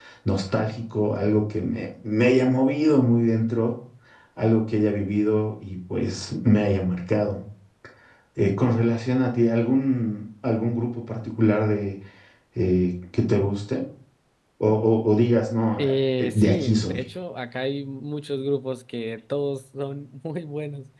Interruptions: present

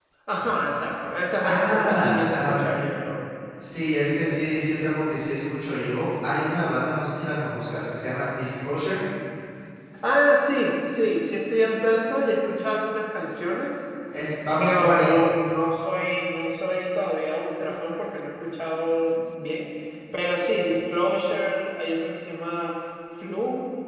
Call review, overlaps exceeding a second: present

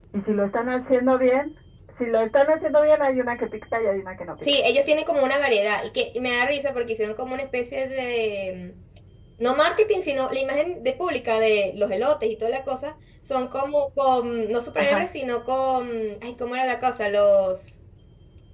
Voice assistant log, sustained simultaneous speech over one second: none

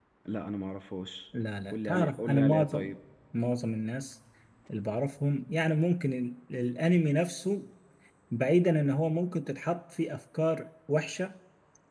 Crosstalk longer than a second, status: present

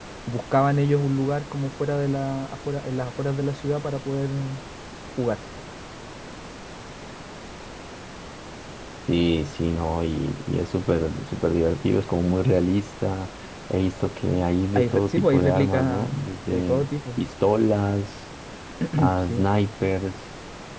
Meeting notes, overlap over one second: present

